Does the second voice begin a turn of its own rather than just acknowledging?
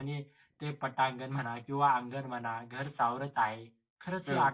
No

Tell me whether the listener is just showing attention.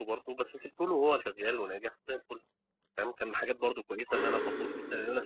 Yes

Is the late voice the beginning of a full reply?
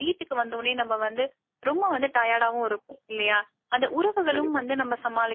No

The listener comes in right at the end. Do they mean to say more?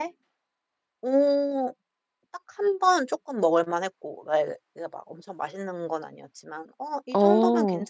No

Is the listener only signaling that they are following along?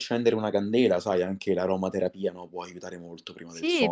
No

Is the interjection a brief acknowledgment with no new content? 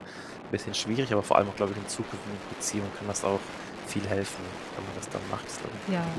No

